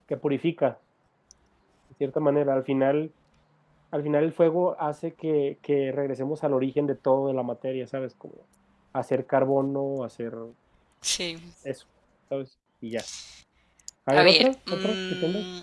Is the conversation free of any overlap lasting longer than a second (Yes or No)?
No